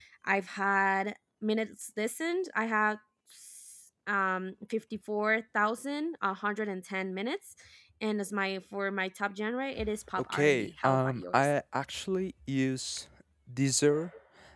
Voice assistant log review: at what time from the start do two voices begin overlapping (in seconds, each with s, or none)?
10.2 s